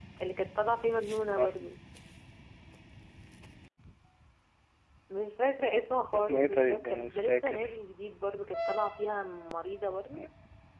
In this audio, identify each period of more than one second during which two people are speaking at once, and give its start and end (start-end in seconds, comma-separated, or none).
6.1-7.8